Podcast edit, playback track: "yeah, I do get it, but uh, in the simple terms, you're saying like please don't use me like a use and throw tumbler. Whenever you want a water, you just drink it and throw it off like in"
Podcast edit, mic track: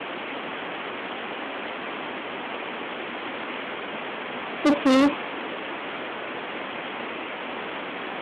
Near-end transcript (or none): Okay.